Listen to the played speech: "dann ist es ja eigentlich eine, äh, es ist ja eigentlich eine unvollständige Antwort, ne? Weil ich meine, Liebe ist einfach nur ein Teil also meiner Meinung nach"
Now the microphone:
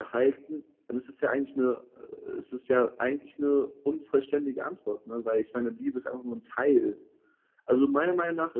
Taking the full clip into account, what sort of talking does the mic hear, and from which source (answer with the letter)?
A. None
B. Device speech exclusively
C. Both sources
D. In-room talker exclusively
B